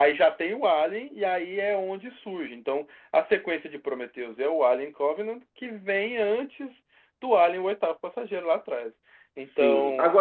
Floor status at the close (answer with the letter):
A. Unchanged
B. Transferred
B